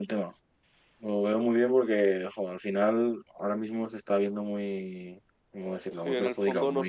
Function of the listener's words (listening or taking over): taking over